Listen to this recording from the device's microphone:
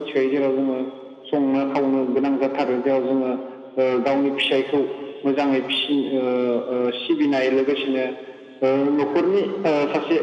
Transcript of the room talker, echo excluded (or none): none